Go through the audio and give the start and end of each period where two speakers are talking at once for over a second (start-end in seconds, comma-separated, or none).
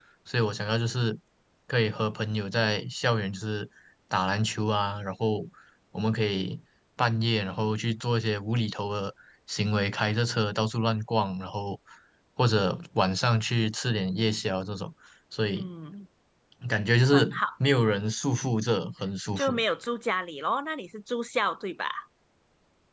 none